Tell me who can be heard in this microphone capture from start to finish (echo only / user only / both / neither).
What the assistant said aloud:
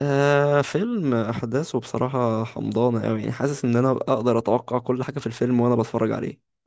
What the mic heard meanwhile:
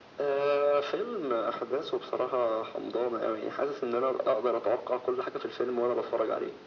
echo only